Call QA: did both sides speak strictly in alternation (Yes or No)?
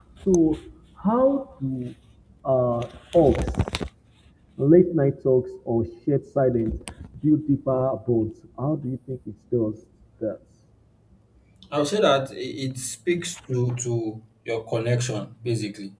Yes